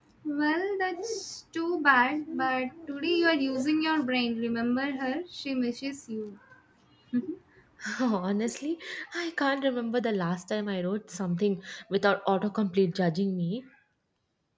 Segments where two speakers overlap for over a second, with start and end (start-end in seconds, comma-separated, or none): none